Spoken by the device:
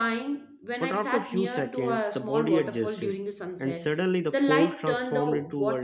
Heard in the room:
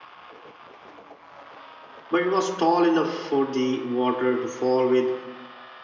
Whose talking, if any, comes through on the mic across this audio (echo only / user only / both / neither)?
user only